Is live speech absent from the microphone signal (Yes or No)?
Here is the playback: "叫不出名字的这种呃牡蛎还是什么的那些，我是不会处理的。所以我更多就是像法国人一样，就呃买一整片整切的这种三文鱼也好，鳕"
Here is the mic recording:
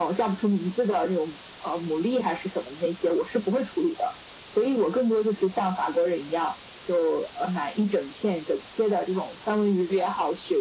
Yes